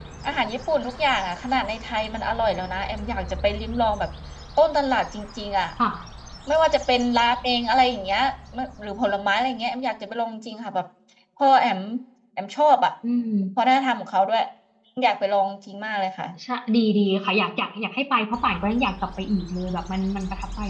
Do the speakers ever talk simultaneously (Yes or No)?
No